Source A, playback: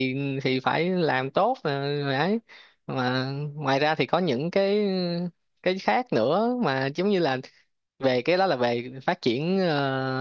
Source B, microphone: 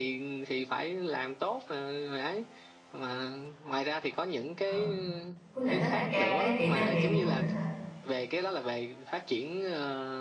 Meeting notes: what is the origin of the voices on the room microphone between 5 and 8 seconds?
both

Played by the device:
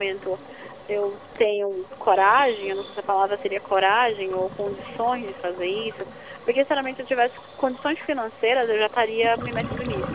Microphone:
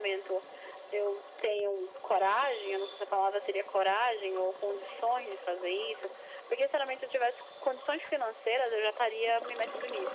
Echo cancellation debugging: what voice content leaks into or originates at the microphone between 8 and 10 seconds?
echo only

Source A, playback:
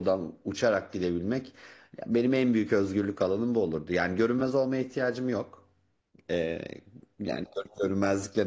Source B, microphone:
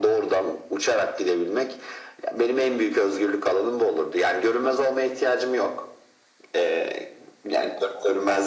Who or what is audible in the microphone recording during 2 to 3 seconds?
echo only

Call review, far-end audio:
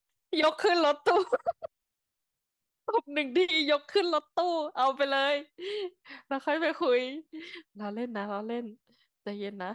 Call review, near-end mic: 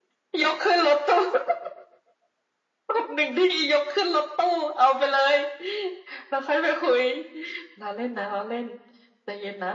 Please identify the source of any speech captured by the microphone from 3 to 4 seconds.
echo only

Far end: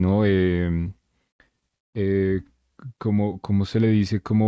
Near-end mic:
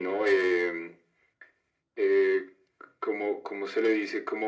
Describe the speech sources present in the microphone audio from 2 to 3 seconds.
echo only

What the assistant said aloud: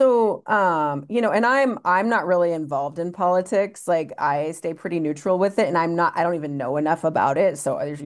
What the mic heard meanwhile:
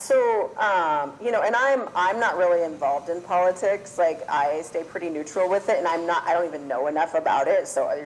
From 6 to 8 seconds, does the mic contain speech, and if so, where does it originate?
echo only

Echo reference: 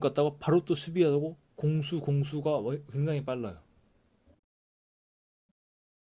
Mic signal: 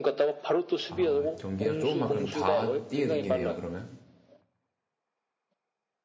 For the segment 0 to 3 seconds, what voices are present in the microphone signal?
both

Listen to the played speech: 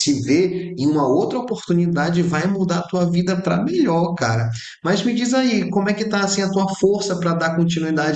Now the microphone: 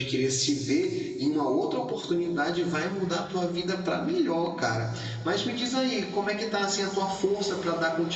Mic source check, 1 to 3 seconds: echo only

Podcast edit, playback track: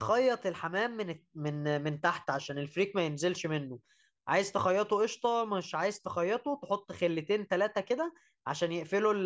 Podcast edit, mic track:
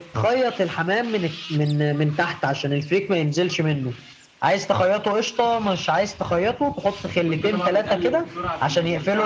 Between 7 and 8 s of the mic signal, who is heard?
both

